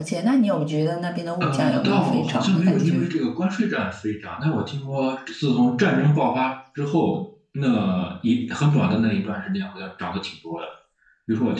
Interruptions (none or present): present